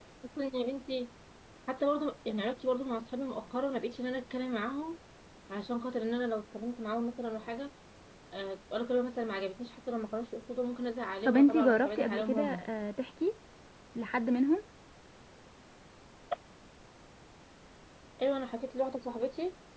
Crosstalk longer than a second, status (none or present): present